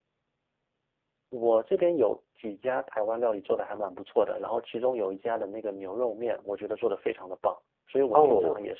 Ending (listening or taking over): listening